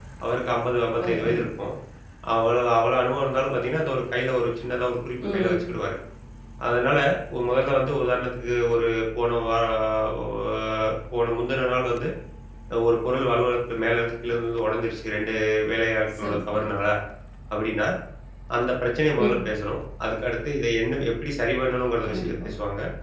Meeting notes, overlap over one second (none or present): none